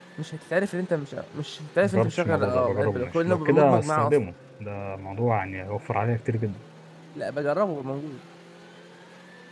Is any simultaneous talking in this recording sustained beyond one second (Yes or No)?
Yes